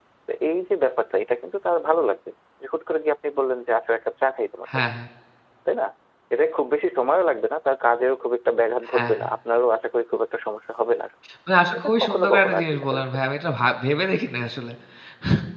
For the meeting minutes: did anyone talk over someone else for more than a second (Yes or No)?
Yes